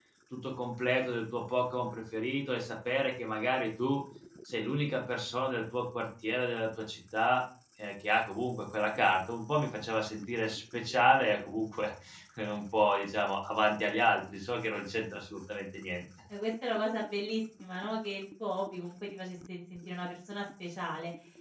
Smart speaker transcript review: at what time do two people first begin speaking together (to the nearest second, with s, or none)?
none